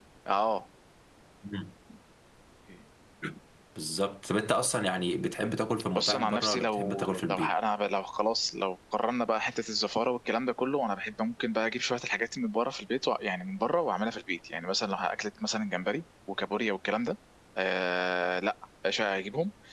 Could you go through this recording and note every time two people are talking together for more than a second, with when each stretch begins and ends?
5.9-7.5

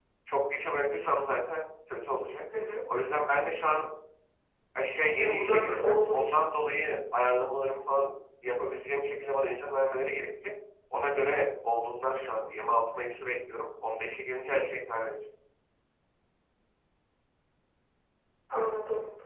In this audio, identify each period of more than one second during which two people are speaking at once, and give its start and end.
5.2-6.6

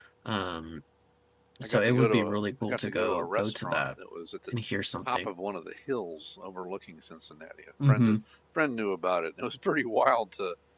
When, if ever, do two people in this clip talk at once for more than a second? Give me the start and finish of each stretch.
1.6-3.8

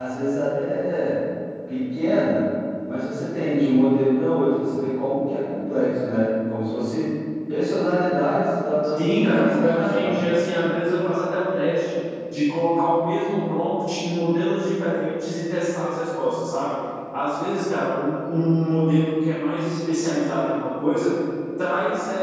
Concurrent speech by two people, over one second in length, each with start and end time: 9.0-10.2

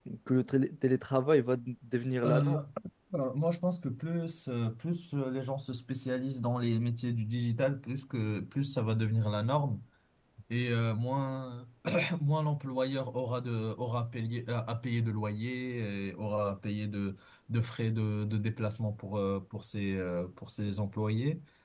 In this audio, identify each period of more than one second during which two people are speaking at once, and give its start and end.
none

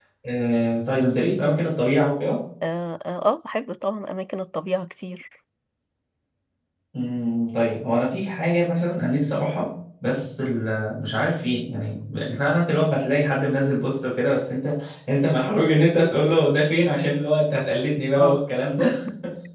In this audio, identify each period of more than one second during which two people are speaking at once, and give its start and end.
none

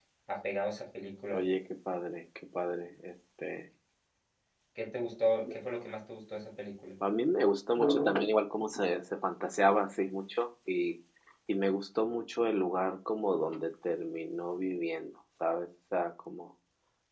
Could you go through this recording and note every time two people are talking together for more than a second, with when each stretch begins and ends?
none

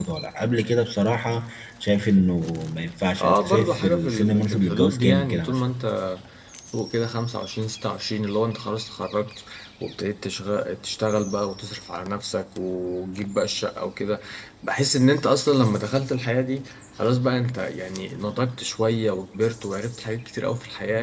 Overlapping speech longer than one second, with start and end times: 3.2-5.6

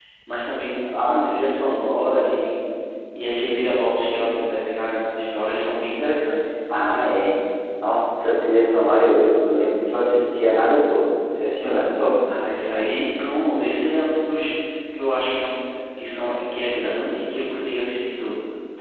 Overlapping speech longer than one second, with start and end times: none

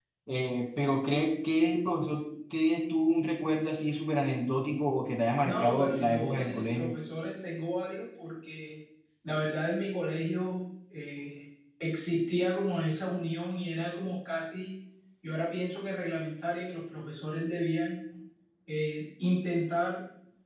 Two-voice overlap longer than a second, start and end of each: 5.4-6.9

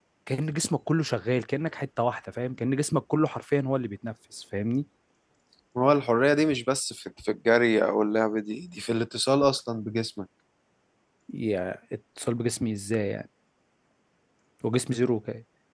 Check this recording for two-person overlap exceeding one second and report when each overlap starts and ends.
none

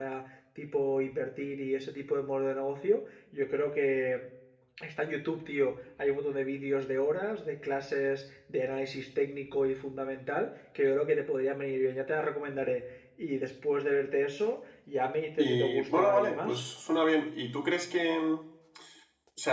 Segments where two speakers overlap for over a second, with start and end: 15.4-16.6

